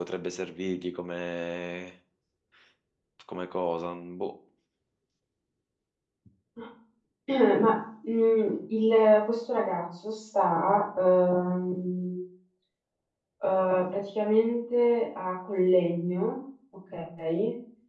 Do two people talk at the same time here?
No

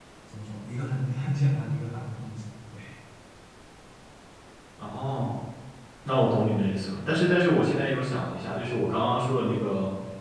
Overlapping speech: No

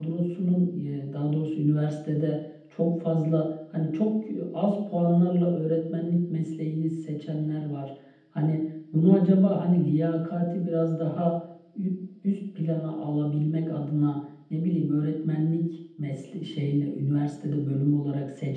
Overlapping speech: No

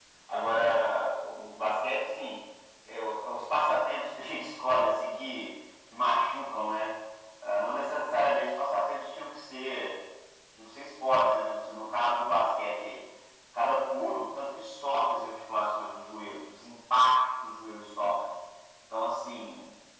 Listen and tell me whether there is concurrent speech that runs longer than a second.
No

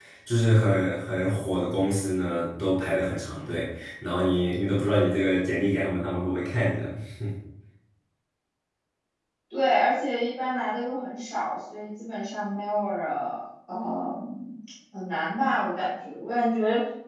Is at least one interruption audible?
No

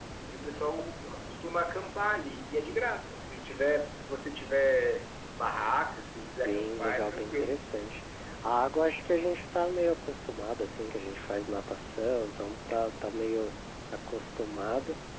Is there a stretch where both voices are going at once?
Yes, from 6.2 s

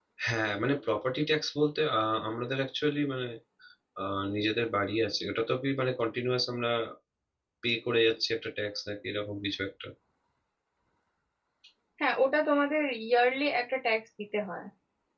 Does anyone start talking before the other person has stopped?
No

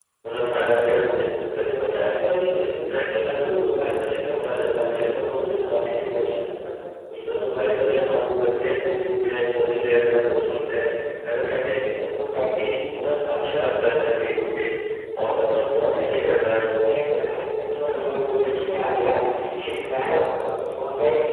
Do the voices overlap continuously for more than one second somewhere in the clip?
Yes, from 4.4 s

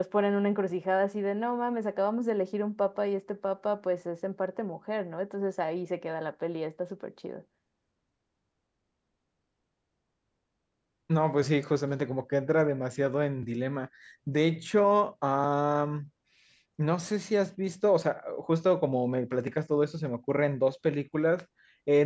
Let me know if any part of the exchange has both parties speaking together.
No

